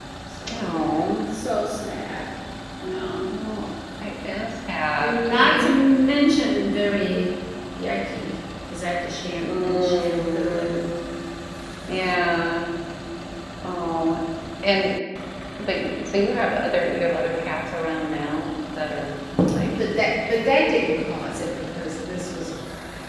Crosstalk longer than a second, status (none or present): present